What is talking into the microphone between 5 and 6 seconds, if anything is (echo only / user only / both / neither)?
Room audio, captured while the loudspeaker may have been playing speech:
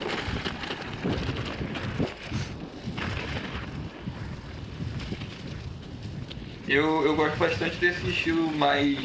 neither